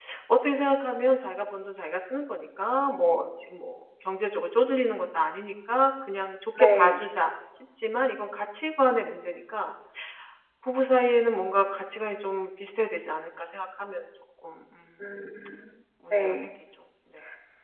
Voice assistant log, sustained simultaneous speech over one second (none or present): none